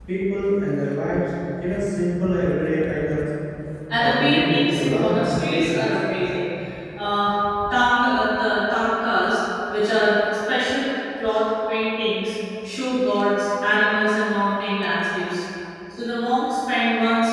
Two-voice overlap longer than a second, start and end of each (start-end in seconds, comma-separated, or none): 4.0-5.9